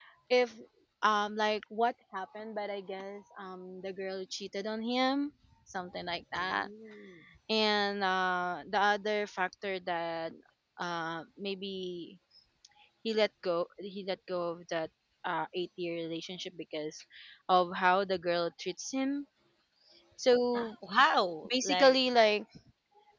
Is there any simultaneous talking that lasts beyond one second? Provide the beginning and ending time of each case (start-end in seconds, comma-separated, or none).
none